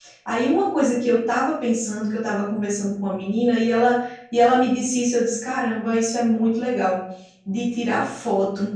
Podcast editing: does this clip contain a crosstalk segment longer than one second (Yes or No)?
No